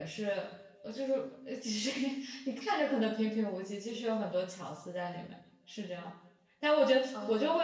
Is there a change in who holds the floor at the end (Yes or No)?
No